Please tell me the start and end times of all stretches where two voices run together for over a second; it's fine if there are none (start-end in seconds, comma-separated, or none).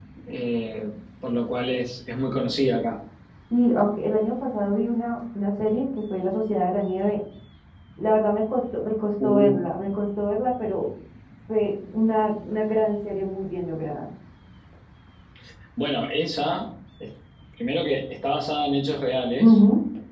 none